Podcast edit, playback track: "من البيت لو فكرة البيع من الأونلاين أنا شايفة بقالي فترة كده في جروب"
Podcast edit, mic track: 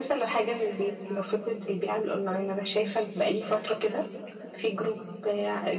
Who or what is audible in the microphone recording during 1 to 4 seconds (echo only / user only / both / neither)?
both